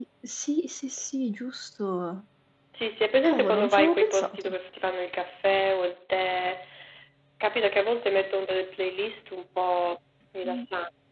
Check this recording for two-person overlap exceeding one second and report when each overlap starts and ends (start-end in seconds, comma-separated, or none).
3.2-4.5